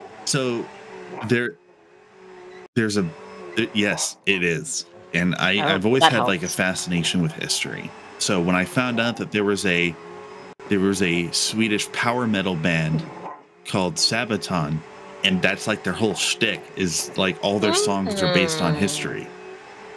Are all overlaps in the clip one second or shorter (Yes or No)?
No